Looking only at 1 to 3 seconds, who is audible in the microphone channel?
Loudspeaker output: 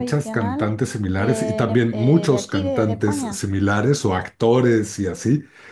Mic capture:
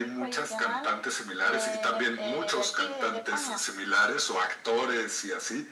echo only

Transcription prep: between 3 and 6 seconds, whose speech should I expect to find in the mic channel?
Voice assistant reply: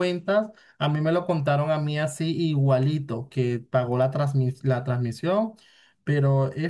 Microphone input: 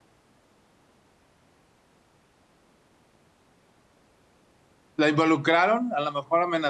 user only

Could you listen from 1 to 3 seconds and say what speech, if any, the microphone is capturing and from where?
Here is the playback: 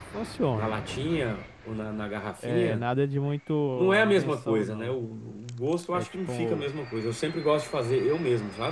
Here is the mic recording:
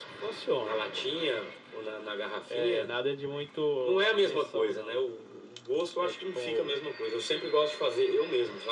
echo only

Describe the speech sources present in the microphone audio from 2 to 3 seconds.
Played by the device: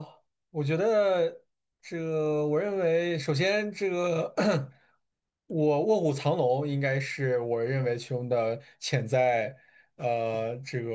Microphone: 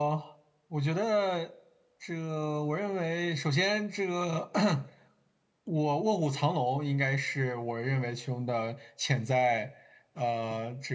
echo only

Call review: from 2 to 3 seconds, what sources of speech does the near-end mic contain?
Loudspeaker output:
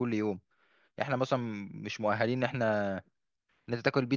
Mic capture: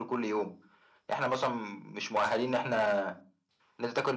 echo only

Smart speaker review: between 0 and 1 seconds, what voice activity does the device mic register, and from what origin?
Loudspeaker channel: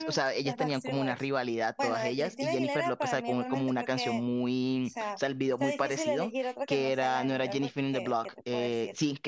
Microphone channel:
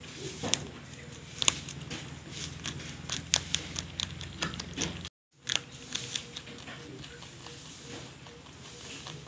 neither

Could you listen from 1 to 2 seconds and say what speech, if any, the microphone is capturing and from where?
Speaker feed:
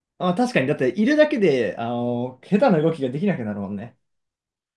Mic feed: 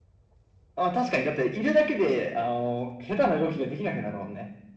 echo only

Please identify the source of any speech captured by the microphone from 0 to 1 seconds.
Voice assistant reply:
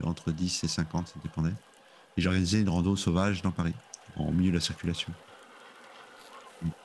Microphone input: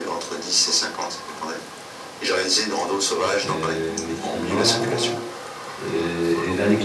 echo only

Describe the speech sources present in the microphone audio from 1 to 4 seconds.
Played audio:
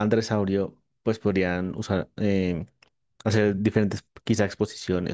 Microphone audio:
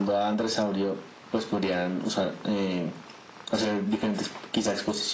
echo only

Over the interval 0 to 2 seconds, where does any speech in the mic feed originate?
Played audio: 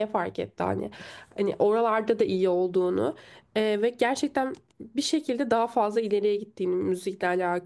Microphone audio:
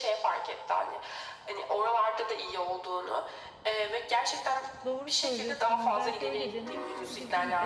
echo only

